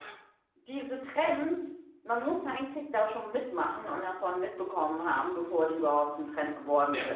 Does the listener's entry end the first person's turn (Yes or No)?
No